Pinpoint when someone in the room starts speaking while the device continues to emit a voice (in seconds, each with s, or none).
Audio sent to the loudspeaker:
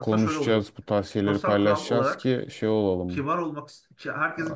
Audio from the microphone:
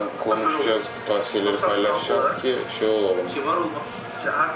none